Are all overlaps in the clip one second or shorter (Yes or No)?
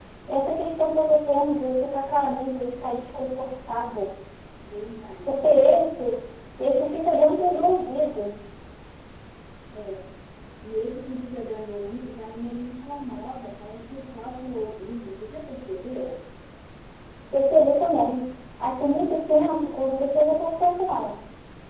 Yes